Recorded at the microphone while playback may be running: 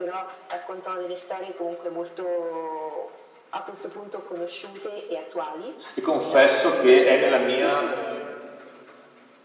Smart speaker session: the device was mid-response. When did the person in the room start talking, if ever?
6 s

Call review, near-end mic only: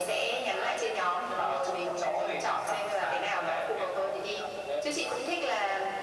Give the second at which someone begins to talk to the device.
none

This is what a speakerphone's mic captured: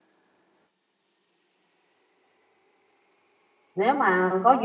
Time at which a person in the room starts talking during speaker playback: 4 s

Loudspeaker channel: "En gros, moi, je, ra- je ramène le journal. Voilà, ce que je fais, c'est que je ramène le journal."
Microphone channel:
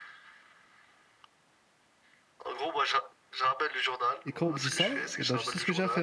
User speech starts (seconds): 4 s

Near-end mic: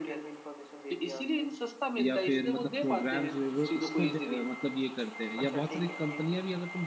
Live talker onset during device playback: 2 s

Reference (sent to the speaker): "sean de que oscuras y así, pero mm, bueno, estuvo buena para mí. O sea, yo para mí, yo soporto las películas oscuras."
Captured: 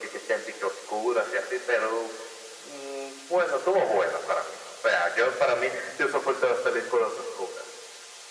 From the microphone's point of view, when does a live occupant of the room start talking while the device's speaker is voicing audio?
none

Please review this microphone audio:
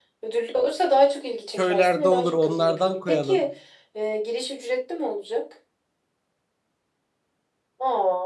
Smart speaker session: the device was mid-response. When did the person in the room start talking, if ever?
2 s

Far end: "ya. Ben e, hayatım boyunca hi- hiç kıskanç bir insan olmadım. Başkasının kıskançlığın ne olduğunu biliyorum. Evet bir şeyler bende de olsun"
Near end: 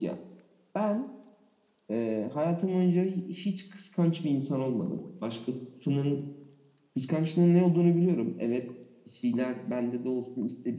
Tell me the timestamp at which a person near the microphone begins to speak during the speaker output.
none

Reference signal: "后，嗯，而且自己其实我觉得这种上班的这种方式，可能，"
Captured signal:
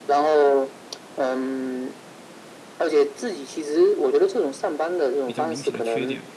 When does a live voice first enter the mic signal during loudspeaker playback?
5 s

